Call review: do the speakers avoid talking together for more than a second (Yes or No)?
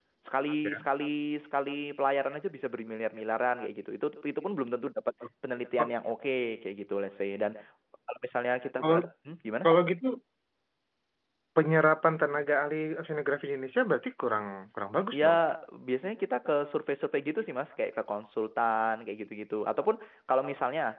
Yes